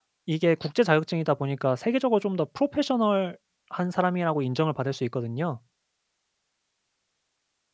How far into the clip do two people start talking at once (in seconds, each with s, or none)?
none